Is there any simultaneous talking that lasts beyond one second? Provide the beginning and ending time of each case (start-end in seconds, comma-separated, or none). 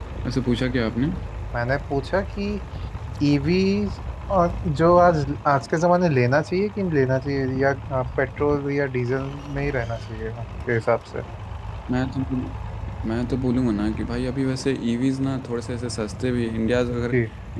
none